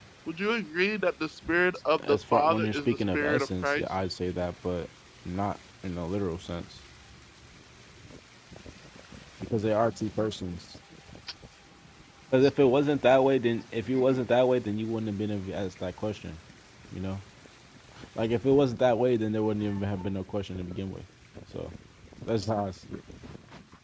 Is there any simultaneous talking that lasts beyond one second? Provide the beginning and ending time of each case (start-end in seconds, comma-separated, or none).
2.1-3.9